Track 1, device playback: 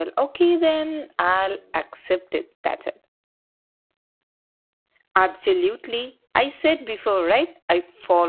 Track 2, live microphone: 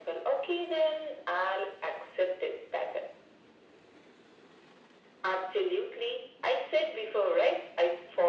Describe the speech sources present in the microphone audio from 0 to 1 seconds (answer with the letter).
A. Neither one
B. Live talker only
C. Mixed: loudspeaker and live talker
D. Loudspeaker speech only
D